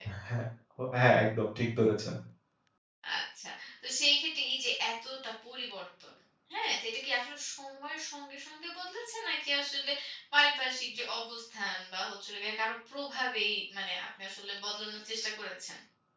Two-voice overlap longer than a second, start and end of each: none

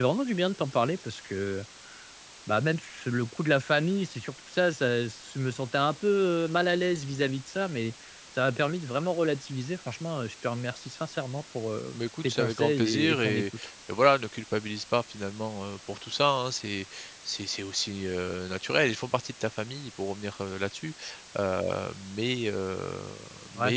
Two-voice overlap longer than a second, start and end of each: 12.2-13.4

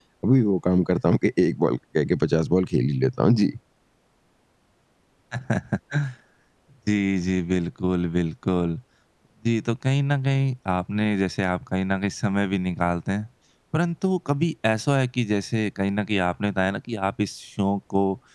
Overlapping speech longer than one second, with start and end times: none

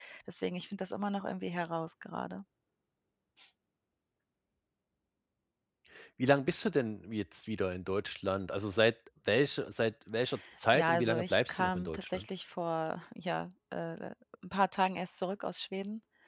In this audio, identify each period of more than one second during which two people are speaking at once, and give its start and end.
10.7-12.2

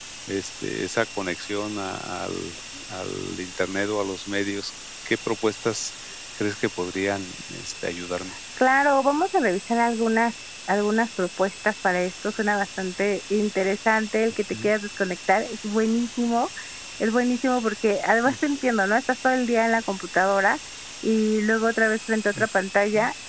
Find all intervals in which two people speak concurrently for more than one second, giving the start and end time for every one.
none

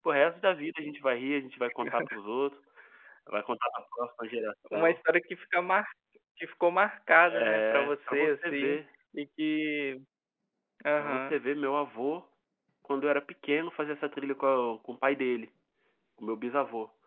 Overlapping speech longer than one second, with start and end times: 7.3-8.8

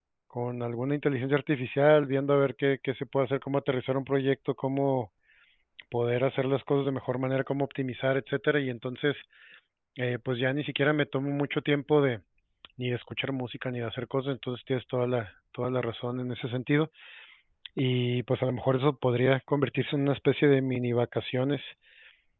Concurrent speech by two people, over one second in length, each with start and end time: none

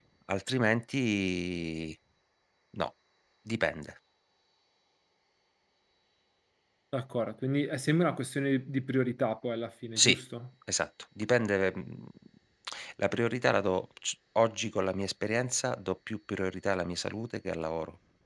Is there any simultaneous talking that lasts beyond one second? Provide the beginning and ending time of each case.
none

